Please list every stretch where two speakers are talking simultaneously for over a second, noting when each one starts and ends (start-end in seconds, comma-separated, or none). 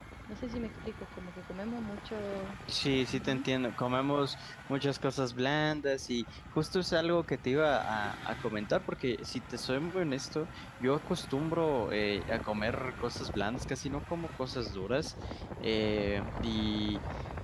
none